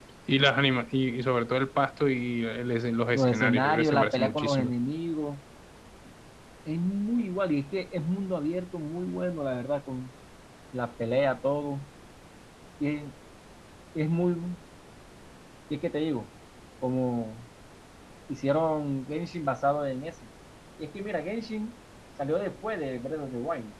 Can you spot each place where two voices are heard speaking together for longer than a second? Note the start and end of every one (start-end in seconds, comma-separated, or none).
3.1-4.7